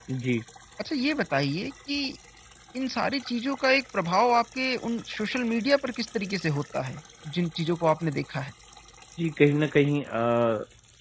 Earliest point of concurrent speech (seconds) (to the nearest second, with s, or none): none